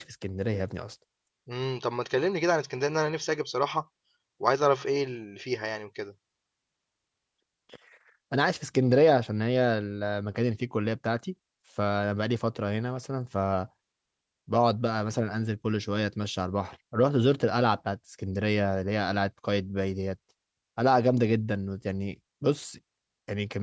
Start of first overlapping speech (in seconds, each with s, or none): none